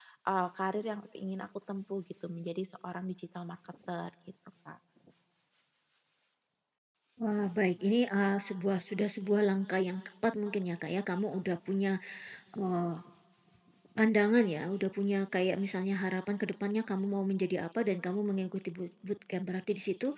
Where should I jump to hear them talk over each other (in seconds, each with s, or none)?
none